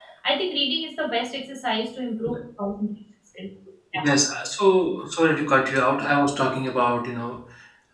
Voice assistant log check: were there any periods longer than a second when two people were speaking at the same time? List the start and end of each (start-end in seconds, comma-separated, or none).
none